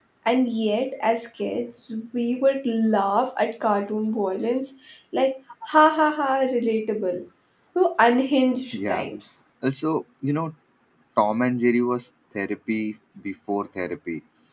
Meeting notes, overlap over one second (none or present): none